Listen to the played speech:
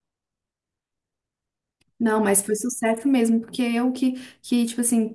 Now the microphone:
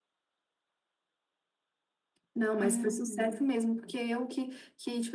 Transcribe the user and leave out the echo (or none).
Uhum.